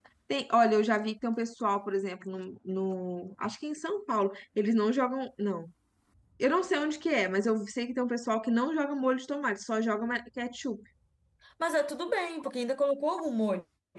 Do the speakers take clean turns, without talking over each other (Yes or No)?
Yes